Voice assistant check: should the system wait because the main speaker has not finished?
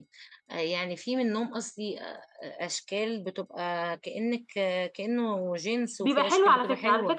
No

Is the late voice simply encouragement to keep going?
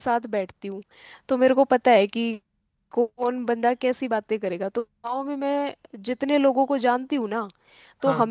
Yes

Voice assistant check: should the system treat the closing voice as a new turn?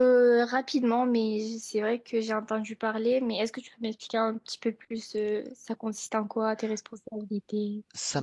Yes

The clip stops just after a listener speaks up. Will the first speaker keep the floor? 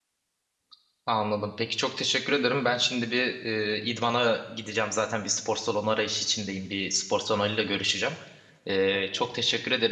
Yes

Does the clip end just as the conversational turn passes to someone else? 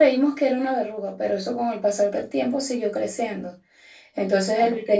No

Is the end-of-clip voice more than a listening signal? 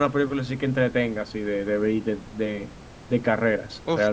Yes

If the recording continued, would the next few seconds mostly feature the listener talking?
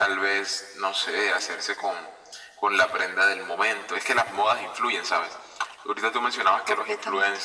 No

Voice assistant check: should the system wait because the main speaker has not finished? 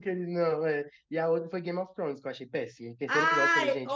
No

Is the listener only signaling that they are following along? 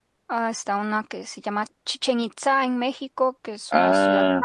No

